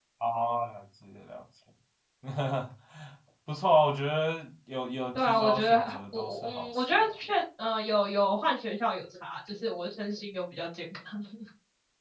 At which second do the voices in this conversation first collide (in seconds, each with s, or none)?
5.1 s